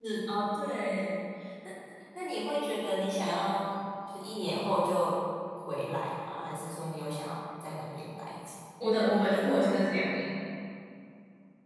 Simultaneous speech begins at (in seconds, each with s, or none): none